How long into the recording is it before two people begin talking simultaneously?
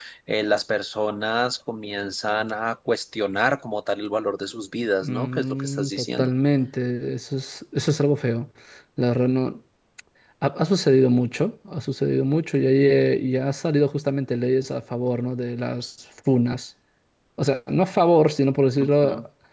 5.0 s

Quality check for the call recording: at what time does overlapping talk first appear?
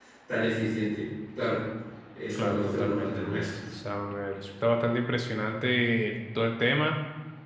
2.4 s

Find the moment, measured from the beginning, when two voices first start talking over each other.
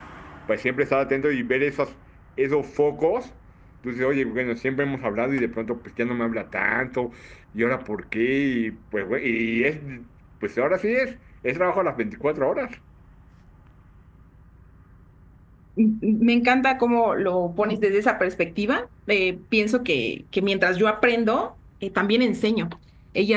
none

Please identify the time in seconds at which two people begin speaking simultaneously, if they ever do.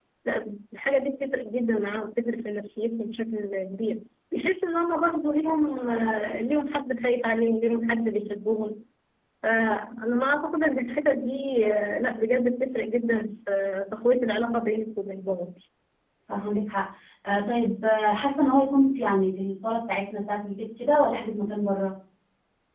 none

